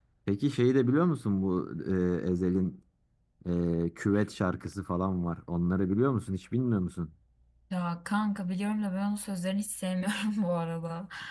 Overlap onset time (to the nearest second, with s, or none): none